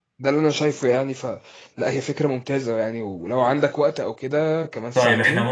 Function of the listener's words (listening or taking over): taking over